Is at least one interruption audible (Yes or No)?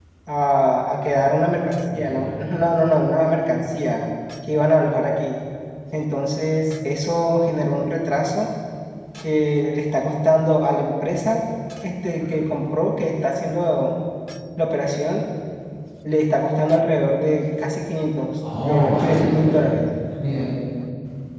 Yes